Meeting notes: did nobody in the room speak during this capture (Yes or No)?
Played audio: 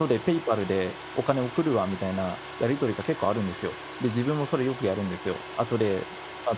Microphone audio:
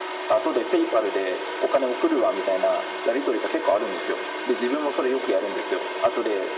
Yes